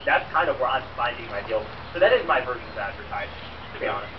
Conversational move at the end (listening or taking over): taking over